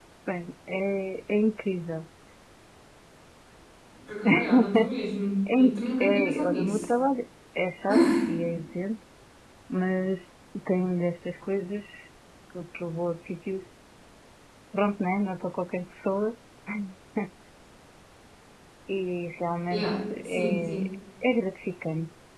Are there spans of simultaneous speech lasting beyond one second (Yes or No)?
Yes